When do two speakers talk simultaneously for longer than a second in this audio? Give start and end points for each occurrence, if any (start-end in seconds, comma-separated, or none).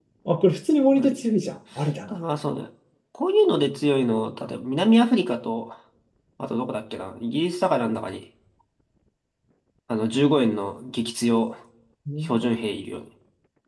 none